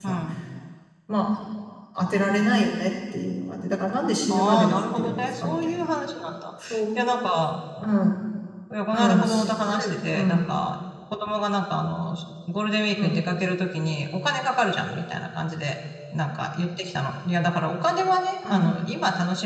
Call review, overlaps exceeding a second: present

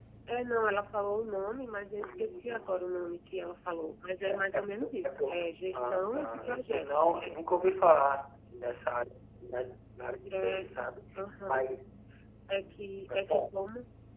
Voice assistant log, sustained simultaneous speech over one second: present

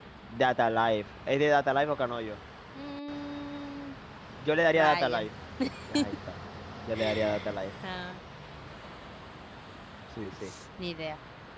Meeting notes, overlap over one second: none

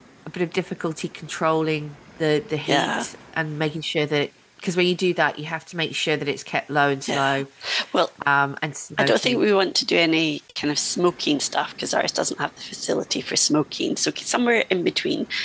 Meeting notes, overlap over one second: none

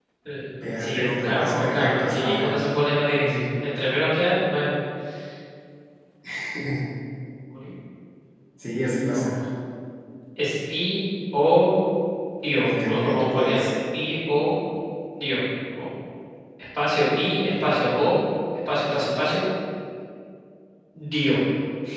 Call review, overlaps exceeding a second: present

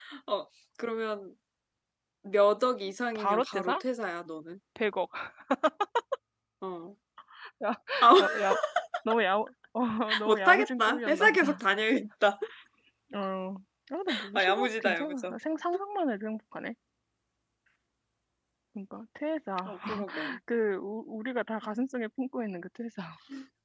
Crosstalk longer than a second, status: present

